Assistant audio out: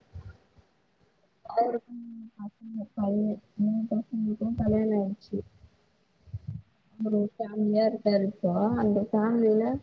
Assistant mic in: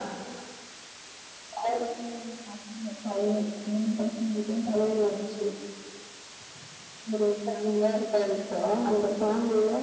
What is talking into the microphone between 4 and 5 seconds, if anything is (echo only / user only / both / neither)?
echo only